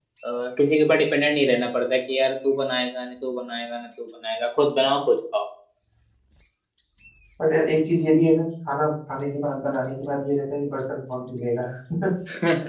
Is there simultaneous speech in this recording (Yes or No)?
No